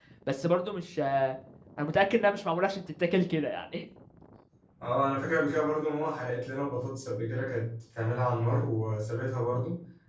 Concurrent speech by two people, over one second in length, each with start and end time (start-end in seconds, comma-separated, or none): none